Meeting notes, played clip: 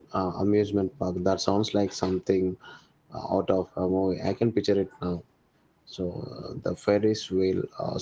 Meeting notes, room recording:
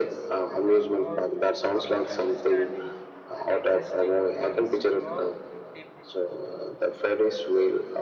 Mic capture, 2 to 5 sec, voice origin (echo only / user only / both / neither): both